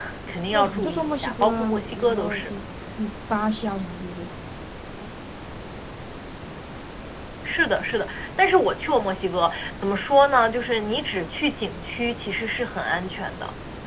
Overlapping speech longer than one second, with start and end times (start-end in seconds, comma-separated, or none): 0.5-2.5